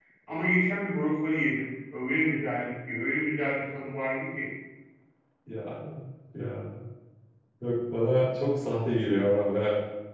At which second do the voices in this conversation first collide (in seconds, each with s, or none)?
none